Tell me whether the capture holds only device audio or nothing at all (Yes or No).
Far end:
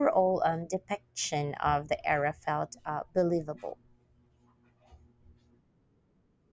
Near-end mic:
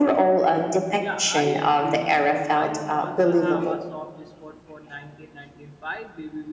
No